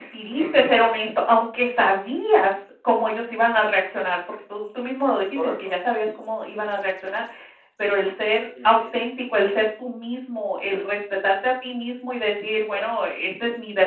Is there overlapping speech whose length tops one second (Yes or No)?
No